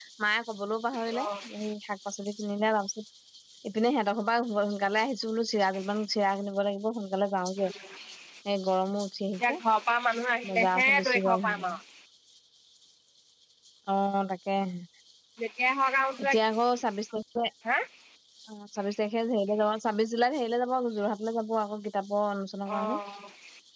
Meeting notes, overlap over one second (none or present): present